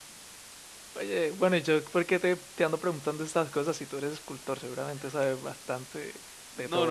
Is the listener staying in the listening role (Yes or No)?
No